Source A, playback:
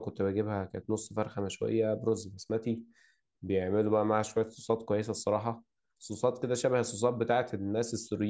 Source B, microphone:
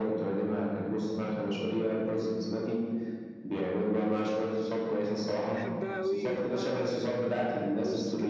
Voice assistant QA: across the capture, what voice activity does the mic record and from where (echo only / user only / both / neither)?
both